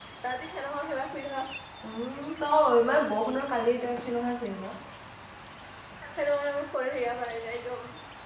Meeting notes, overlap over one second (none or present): none